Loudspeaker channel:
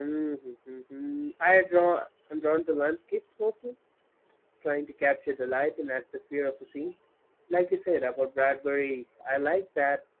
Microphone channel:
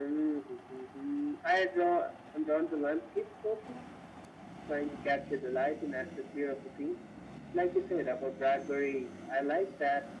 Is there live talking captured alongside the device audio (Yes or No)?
No